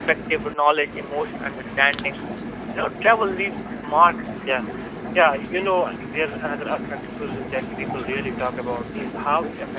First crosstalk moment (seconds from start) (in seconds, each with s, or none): none